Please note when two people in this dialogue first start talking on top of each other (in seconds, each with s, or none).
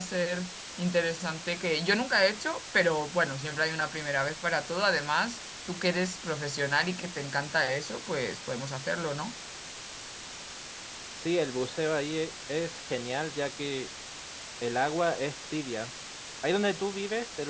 none